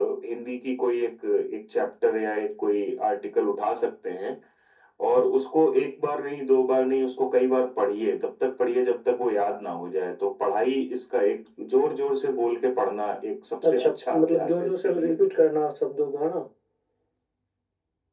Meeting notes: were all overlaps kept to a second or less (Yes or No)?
No